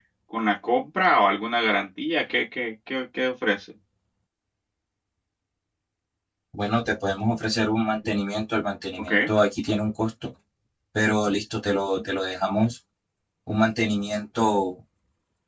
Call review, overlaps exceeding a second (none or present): none